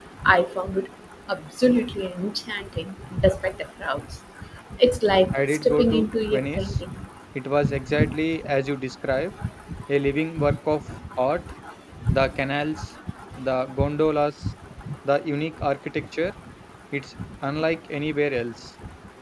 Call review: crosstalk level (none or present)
present